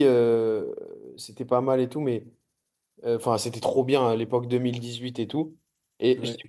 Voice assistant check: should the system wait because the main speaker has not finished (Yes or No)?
Yes